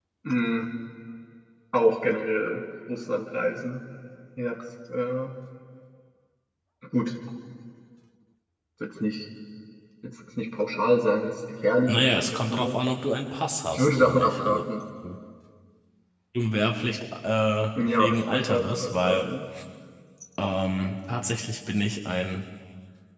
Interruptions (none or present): present